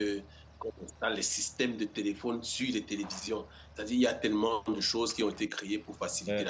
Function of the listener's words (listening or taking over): taking over